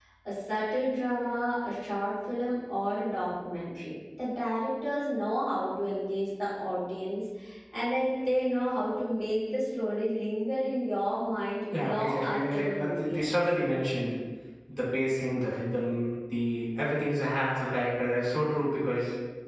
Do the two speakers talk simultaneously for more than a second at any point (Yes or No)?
Yes